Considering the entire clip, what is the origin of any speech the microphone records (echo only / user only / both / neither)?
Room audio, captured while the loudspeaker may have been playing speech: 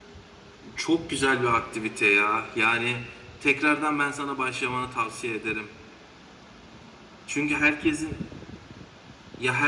echo only